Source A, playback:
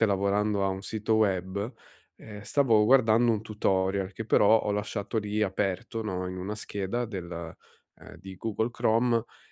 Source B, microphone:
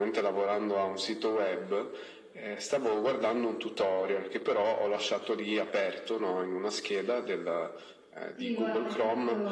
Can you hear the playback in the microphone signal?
Yes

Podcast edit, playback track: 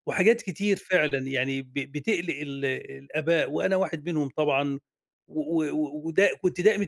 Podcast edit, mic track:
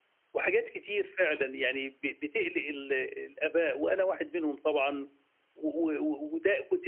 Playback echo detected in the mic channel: Yes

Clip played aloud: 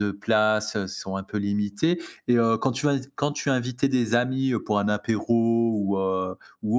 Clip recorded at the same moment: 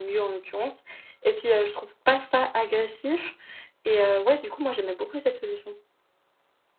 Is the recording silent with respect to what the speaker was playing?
Yes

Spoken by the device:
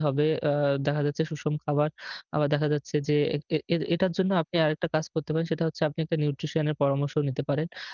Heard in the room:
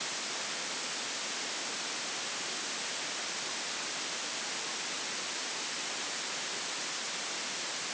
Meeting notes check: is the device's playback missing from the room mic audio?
Yes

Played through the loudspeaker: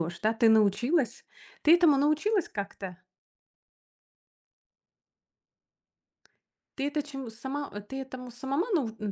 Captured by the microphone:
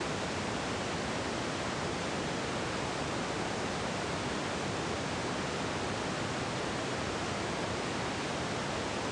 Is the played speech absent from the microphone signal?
Yes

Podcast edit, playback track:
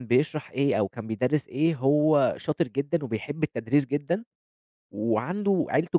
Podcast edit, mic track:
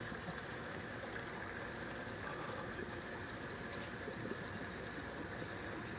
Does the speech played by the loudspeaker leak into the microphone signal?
No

